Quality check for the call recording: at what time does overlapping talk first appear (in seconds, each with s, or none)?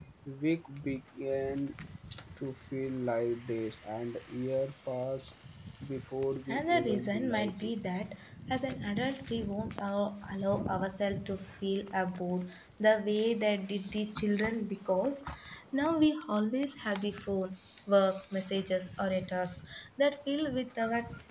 6.5 s